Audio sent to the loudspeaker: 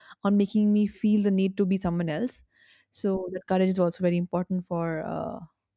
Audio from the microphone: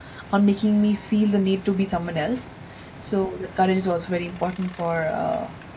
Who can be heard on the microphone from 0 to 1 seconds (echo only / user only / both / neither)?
echo only